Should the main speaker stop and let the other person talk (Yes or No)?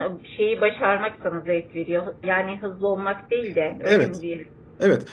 Yes